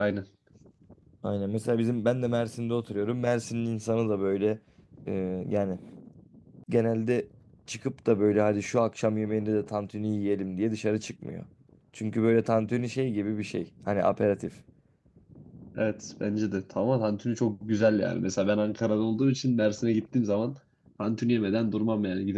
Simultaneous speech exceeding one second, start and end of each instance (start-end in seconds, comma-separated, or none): none